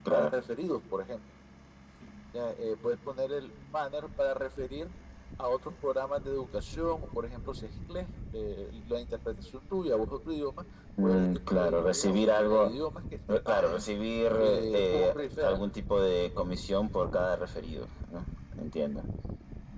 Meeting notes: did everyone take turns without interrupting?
No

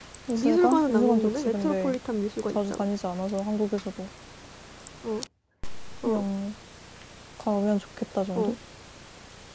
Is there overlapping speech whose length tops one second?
Yes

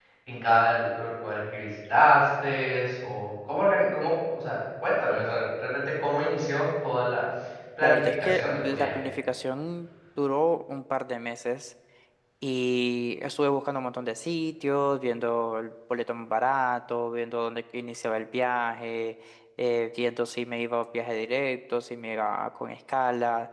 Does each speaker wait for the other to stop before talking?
No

